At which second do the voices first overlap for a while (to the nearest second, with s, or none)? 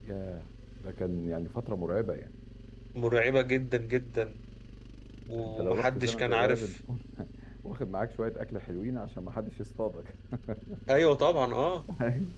5 s